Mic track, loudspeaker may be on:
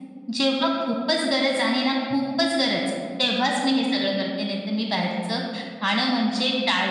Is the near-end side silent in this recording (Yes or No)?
Yes